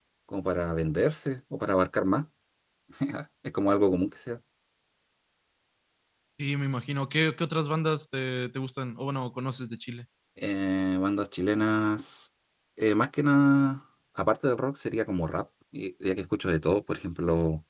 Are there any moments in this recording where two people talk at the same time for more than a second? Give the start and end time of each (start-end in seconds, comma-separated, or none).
none